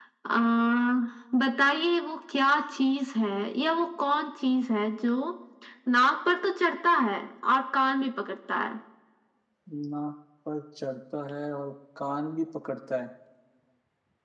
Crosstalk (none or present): none